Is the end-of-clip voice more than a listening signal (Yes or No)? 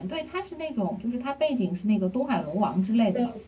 No